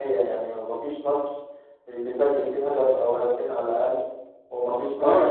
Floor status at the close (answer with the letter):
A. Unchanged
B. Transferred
B